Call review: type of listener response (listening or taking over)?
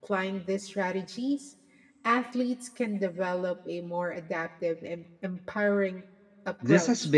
taking over